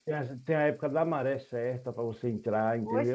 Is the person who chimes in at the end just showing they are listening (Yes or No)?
No